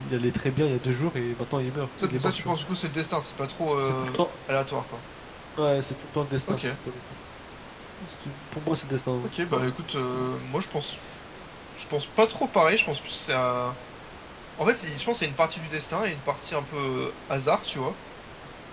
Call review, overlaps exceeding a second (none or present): none